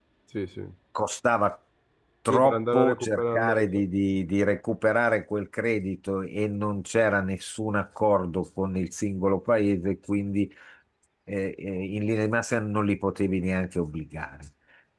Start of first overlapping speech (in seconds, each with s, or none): 2.3 s